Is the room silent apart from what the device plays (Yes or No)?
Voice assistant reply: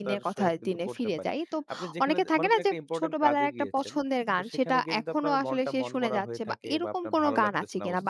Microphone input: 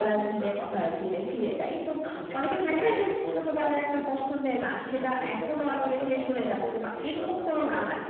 Yes